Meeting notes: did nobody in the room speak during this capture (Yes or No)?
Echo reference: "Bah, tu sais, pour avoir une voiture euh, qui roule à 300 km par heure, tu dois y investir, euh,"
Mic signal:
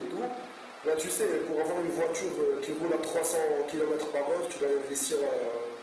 Yes